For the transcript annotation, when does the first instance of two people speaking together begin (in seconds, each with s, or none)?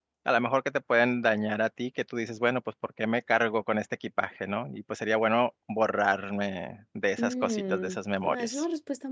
7.2 s